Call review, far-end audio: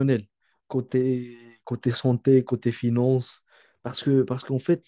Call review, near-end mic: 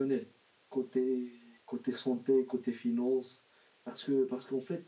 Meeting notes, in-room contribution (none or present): none